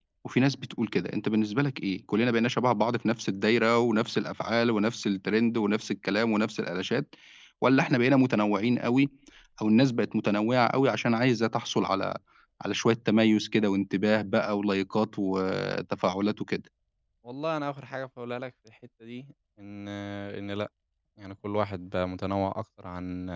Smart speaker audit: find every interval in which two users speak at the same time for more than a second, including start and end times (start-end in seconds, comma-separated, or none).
none